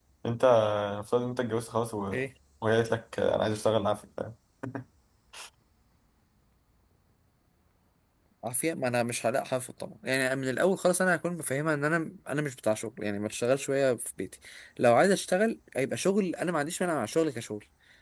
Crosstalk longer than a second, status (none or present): none